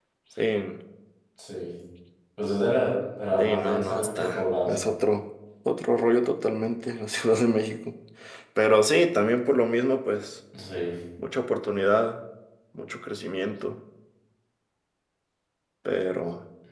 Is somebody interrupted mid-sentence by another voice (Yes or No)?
Yes